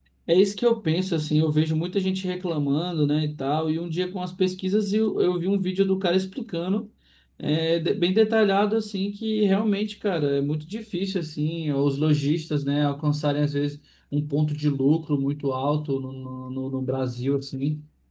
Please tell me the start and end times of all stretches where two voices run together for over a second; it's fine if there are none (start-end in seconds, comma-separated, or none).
none